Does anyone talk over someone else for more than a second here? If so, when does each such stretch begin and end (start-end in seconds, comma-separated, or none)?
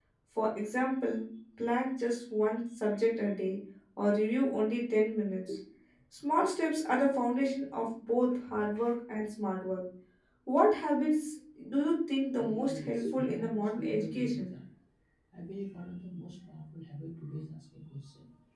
12.4-14.5